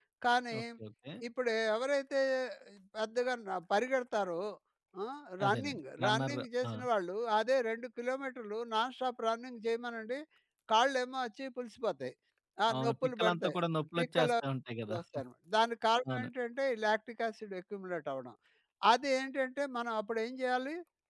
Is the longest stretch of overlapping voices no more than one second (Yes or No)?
No